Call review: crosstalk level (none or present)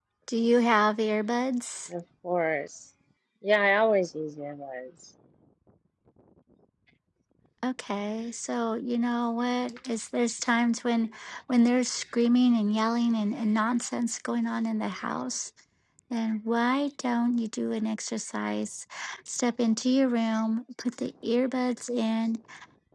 none